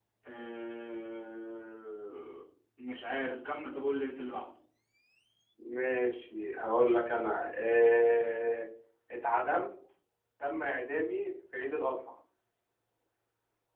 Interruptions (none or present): none